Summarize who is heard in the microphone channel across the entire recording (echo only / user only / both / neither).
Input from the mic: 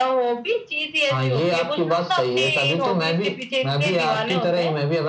echo only